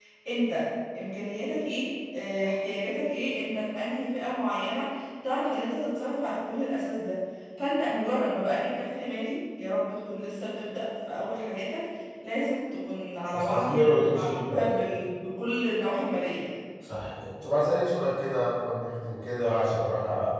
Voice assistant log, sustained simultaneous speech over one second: present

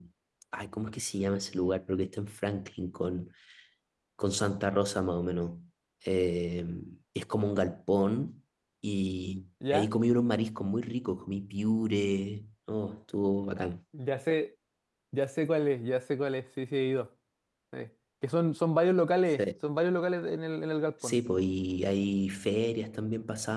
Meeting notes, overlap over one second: none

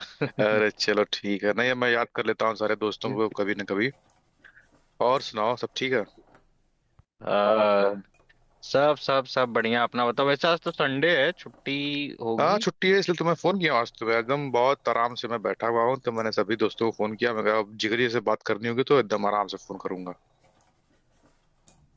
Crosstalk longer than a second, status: none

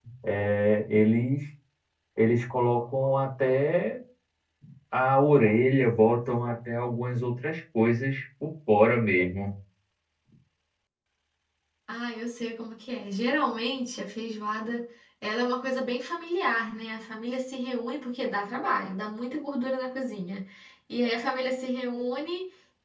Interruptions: none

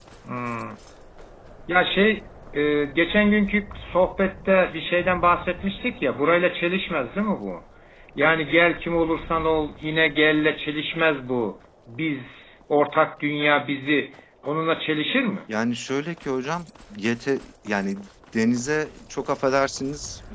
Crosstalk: none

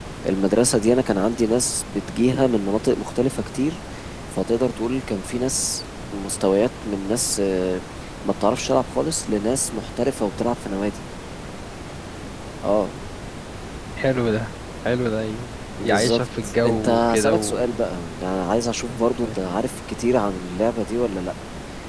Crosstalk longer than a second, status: present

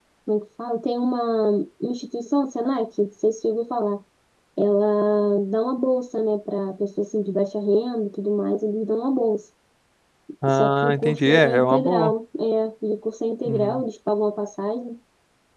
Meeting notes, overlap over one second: present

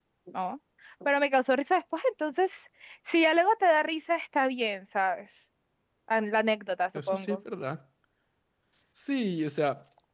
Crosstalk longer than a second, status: none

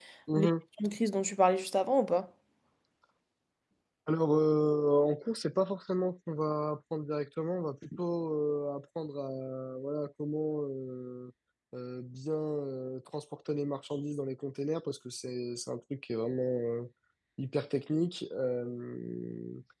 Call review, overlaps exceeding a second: none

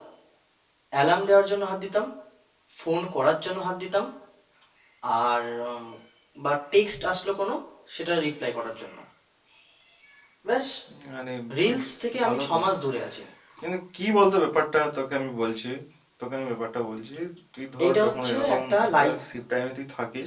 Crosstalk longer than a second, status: present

